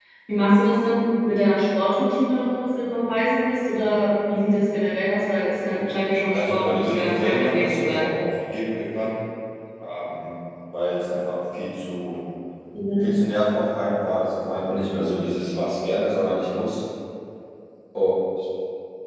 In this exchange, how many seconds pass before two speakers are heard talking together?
6.3 s

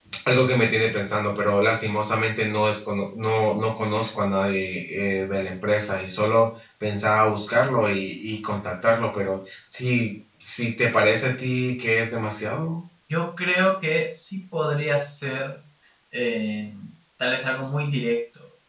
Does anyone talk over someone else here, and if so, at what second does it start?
none

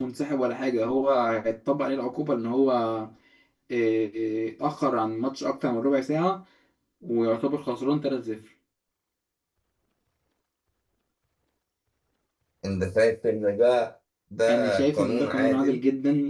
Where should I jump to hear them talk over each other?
14.5 s

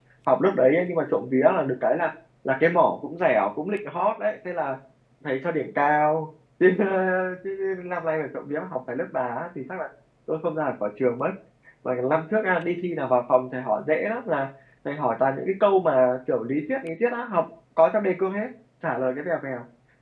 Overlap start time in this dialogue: none

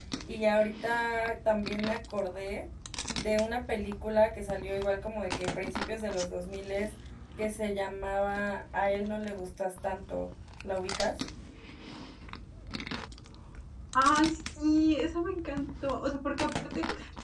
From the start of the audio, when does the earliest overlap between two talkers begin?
none

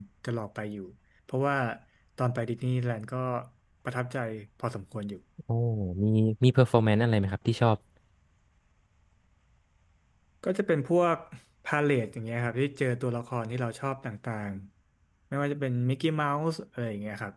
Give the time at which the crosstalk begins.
none

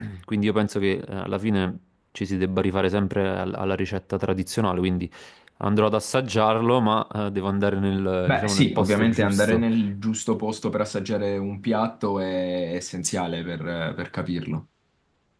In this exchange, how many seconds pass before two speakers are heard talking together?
8.3 s

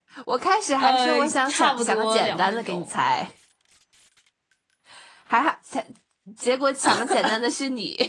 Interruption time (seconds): 0.8 s

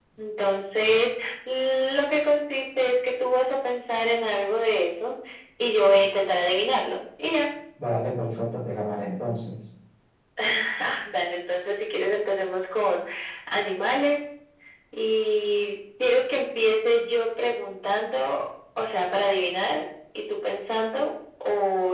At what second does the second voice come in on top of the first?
none

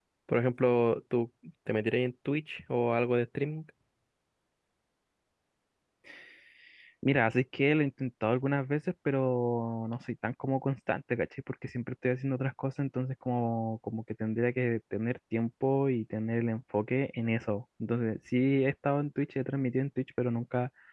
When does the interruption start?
none

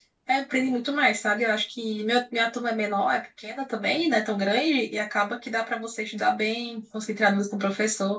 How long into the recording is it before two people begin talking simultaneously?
none

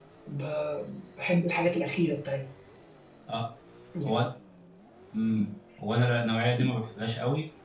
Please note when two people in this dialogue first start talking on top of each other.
none

